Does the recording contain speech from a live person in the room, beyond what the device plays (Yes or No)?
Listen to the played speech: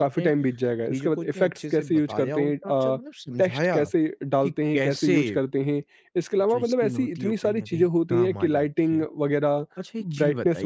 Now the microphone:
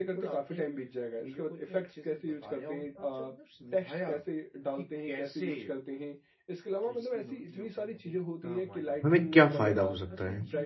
Yes